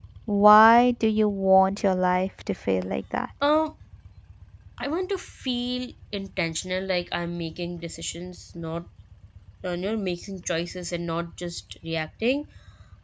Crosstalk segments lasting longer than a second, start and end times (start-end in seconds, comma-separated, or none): none